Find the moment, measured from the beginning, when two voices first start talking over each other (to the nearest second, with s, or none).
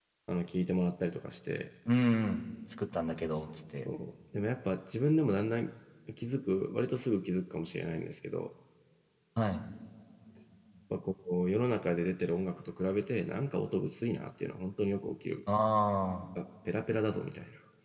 none